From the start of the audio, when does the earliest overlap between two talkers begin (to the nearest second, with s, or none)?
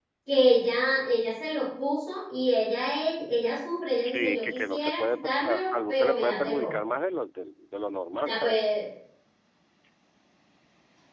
4 s